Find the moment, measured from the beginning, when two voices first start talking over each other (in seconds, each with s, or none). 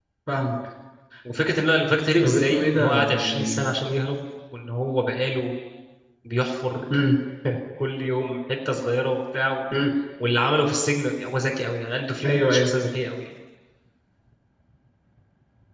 2.2 s